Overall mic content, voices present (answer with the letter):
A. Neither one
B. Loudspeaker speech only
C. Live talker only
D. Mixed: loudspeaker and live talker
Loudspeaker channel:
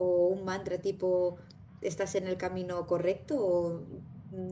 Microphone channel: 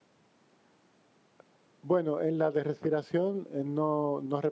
C